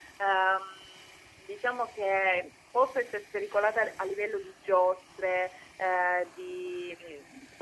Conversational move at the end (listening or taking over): listening